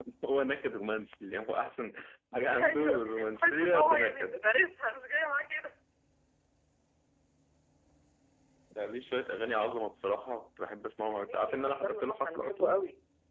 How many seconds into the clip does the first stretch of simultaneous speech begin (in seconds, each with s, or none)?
2.5 s